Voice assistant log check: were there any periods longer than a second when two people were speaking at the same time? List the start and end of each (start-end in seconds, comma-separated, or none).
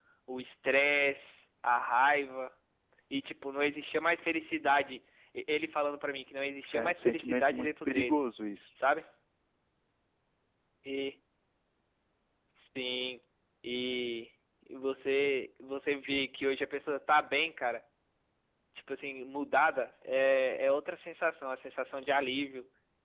6.7-8.2